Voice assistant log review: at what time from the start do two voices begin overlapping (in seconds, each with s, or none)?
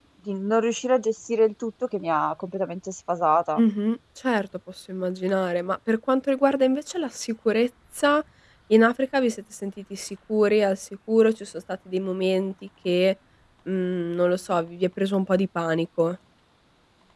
none